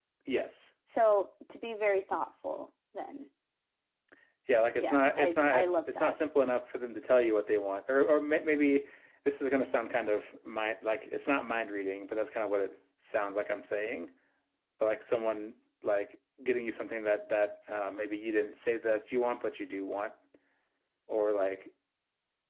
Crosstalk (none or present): present